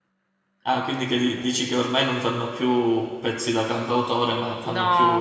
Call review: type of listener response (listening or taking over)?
taking over